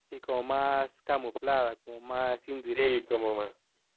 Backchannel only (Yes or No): No